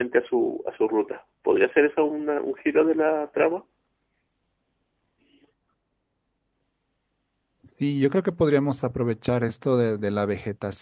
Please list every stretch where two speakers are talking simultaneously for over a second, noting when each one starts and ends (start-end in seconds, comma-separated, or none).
none